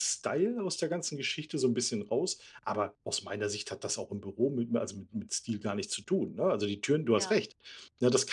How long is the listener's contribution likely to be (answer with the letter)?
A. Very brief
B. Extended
A